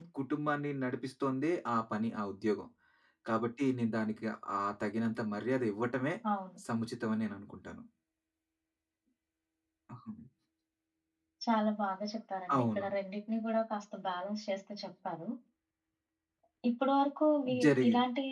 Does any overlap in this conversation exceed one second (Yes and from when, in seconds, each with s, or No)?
No